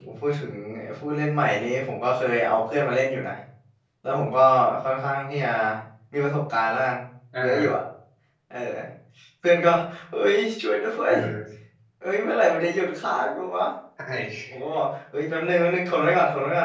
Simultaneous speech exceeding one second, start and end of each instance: none

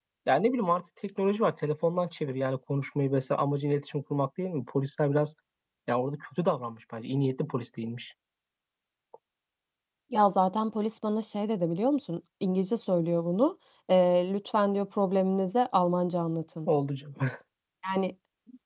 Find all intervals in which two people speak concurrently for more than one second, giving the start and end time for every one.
none

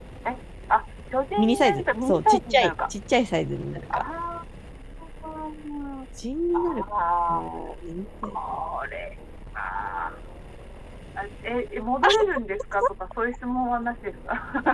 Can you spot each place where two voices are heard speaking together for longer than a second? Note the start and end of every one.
1.4-2.7

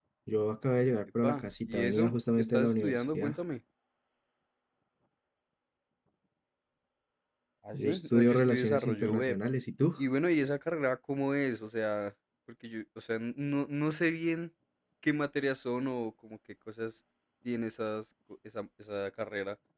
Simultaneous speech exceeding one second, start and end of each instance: 1.2-3.4, 7.7-9.4

